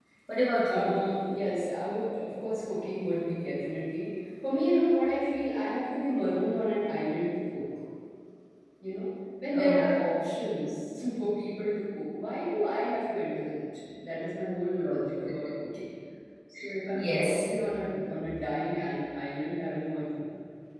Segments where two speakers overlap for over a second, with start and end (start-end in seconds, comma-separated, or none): none